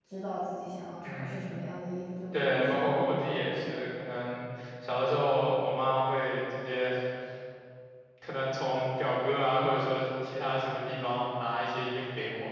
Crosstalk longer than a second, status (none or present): present